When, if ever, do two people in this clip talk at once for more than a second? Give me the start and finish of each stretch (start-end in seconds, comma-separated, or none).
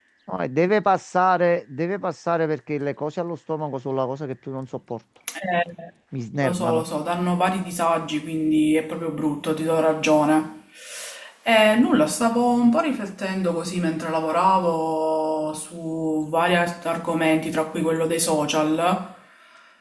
none